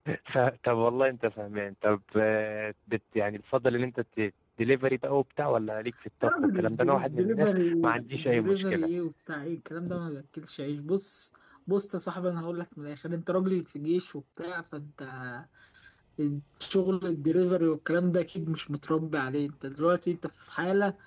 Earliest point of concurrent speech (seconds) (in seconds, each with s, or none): 6.2 s